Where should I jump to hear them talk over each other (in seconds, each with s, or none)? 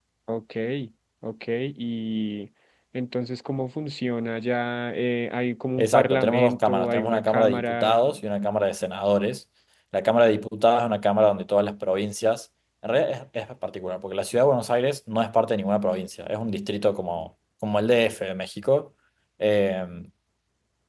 5.8 s